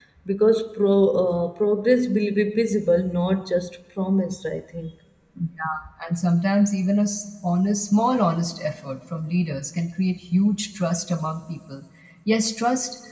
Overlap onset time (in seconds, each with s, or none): none